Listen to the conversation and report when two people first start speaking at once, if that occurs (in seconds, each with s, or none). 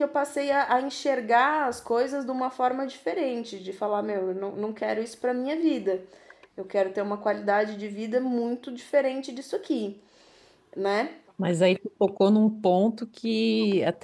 none